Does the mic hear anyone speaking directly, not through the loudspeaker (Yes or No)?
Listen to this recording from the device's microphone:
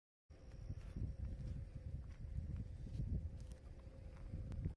No